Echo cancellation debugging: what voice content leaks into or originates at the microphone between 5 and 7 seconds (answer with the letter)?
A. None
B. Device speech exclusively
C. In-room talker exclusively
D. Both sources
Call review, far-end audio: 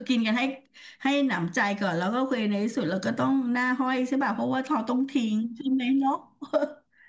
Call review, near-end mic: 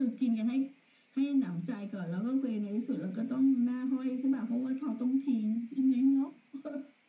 B